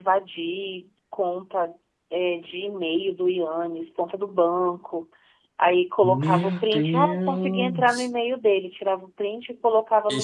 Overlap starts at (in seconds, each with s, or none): 6.0 s